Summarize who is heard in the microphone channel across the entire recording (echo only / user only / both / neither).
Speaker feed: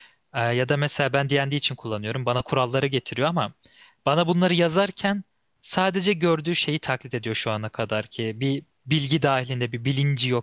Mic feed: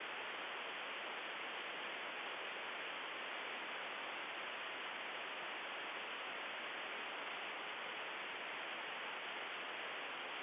neither